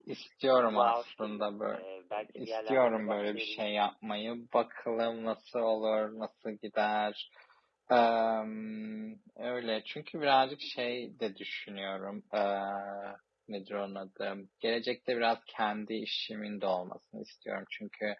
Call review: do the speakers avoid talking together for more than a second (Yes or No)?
No